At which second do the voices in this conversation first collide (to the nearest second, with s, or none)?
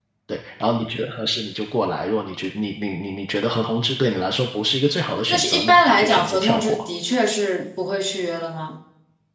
5 s